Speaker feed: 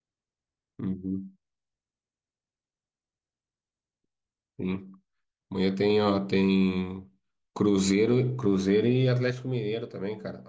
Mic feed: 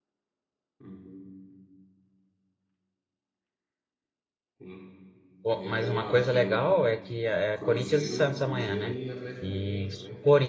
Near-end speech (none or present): present